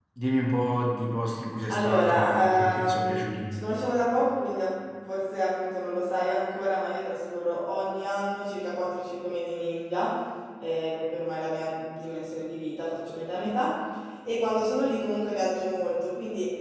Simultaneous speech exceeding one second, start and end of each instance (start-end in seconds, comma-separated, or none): 1.7-3.2